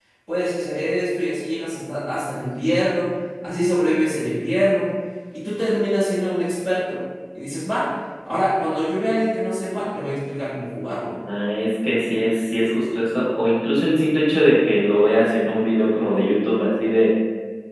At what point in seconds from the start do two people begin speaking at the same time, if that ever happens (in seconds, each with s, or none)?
none